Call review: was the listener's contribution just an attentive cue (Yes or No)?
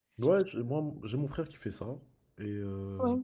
Yes